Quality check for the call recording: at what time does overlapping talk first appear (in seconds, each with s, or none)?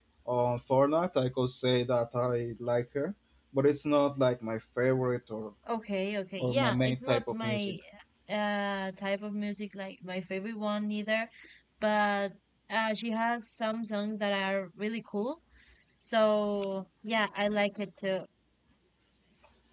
6.4 s